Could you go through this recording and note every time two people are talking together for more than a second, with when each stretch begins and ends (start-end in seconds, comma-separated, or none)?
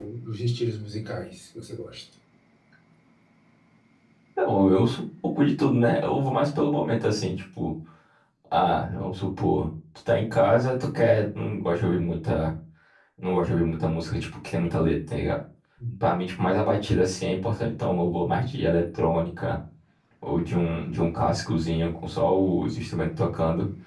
none